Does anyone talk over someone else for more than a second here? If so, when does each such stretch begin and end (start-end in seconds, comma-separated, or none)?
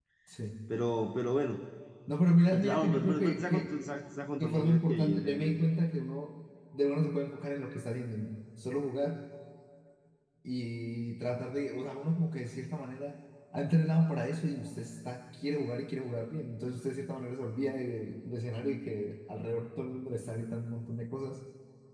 2.5-3.7, 4.4-5.6